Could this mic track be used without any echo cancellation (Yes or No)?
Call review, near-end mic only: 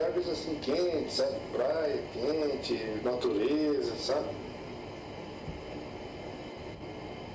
No